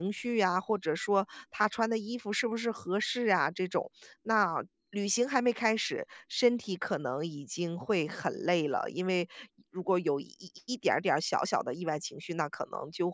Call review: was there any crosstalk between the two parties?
No

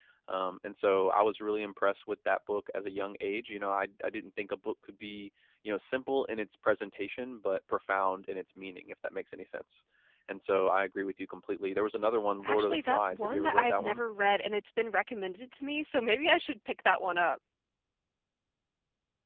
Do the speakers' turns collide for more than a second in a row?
Yes, from 12.4 s

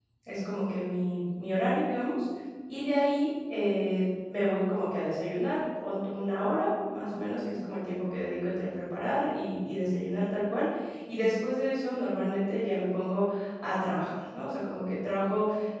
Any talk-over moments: No

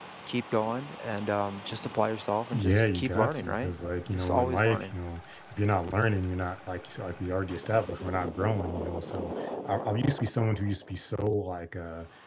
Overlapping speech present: Yes, from 2.5 s

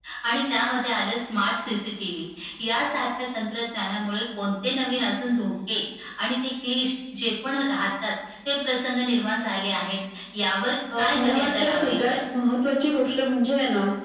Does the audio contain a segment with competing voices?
Yes, from 11.0 s

